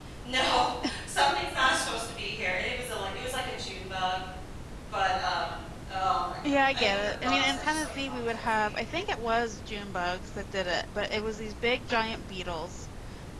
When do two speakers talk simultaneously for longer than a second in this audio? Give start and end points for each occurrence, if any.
6.4-8.7

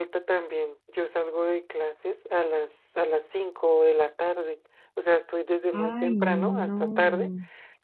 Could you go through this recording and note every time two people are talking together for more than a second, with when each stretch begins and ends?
5.7-7.3

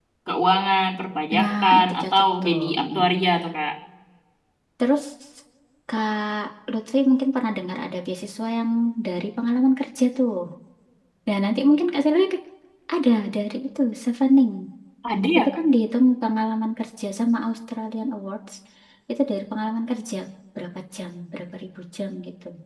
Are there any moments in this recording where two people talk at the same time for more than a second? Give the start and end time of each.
1.4-3.0

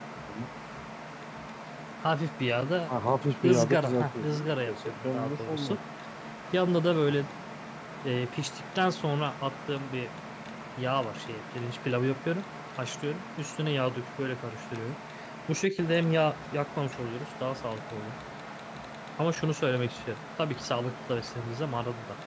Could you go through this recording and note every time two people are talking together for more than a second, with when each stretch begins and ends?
3.5-5.8

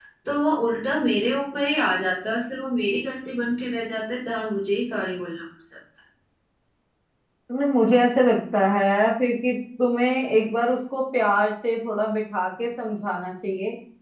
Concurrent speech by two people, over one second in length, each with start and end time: none

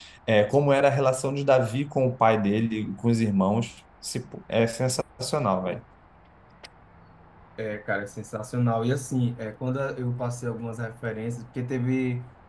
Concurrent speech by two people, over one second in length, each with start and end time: none

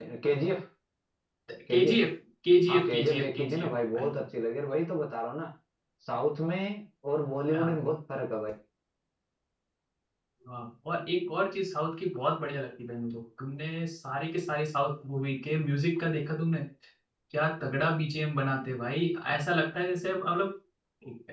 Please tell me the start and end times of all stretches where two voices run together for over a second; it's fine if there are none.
2.7-4.2

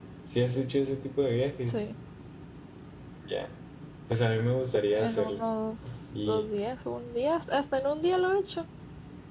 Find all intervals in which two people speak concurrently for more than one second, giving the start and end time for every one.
none

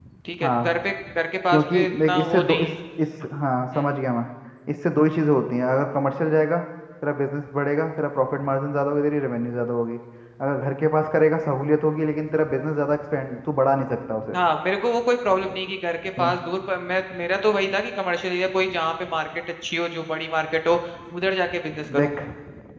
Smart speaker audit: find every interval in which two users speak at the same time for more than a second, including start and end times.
1.5-2.7

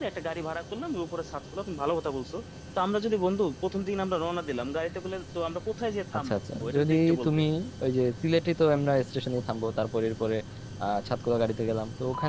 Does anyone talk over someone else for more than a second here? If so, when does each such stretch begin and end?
6.2-7.4

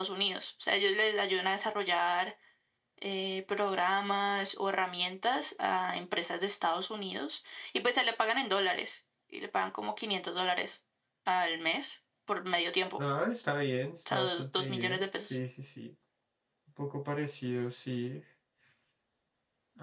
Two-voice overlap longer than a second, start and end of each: 14.1-15.4

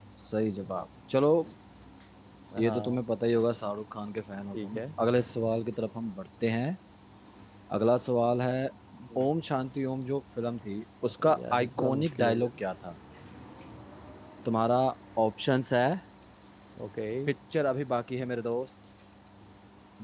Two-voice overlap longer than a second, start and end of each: 11.2-12.5

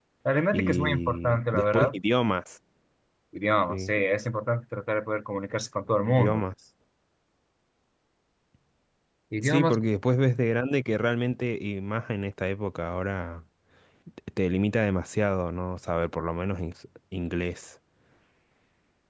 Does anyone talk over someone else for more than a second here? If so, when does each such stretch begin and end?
0.5-1.9

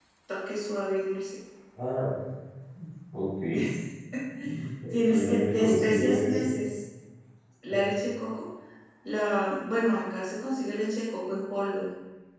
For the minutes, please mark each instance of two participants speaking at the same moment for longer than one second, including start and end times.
5.1-6.4

